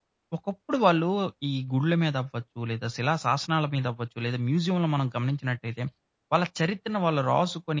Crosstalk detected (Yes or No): No